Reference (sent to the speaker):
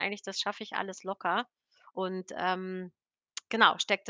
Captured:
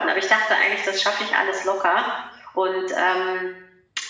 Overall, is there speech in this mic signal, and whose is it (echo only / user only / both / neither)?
echo only